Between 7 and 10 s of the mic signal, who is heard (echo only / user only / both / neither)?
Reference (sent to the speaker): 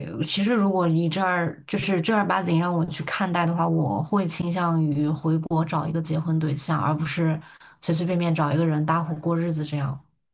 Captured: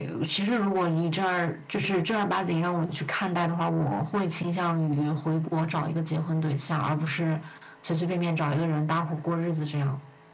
echo only